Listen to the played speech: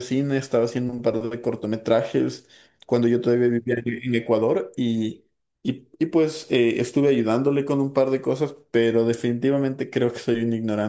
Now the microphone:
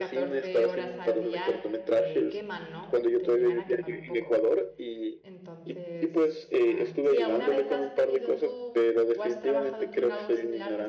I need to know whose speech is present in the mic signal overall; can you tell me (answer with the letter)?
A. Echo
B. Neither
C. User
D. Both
D